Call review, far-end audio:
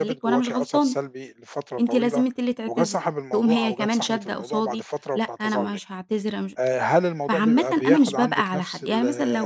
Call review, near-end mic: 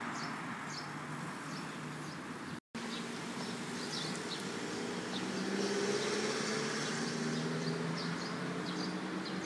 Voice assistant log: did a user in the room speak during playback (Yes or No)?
No